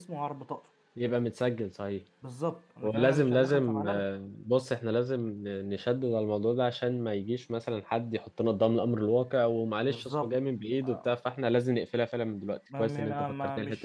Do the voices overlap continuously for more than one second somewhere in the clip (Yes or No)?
Yes